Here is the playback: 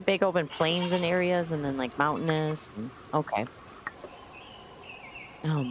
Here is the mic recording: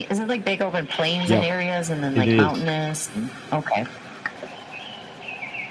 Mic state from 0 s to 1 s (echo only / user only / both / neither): echo only